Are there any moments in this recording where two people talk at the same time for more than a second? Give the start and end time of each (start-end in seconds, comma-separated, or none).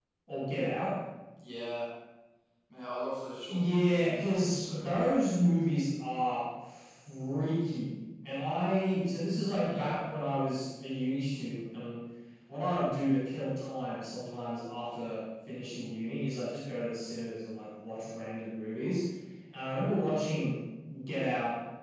3.5-5.1